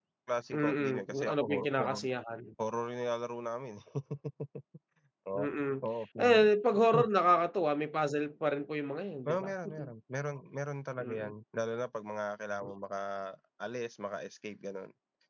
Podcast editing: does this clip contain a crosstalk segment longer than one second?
Yes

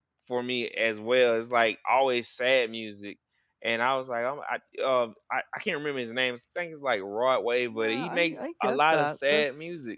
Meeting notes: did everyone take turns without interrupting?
No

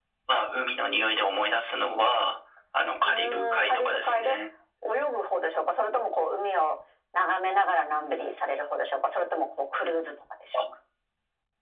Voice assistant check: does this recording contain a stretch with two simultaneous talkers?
Yes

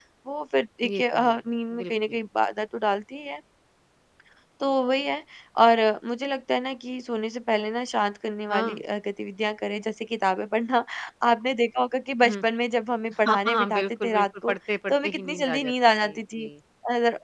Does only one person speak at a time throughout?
No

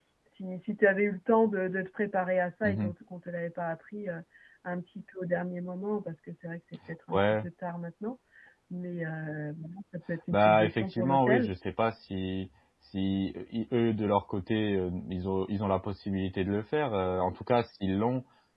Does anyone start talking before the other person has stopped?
Yes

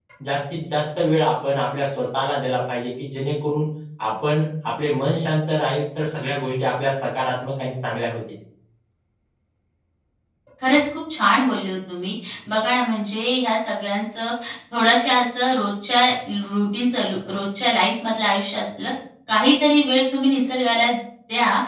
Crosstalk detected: No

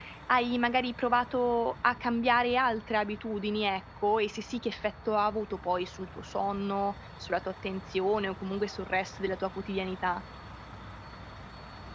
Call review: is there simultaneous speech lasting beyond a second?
No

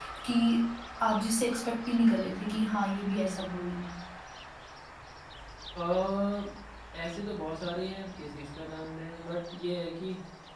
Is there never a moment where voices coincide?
Yes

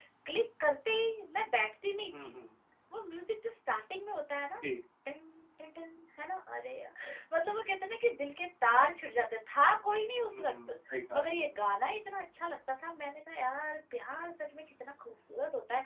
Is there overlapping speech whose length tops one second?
No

